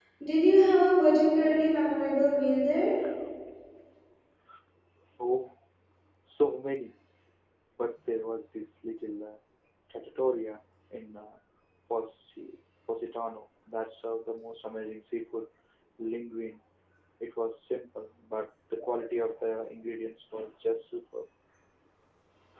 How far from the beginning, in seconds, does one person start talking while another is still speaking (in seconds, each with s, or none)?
none